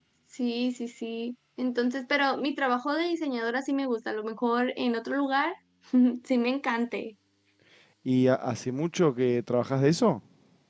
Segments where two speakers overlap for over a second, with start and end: none

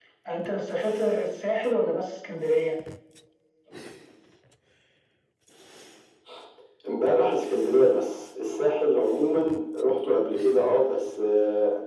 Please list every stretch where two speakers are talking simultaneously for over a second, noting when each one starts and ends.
none

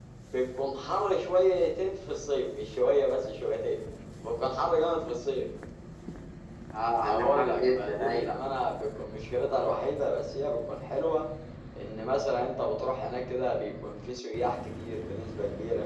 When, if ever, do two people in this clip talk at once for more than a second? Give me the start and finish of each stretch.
7.0-8.4

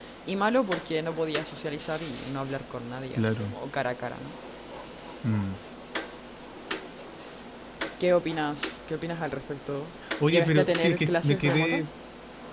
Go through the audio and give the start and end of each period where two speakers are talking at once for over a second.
10.2-11.9

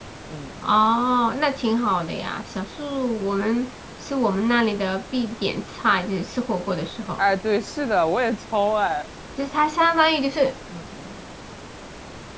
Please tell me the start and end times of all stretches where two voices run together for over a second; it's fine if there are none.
none

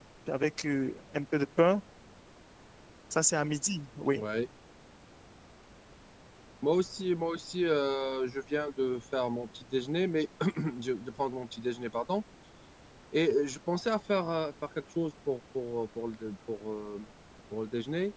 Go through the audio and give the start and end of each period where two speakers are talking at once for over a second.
none

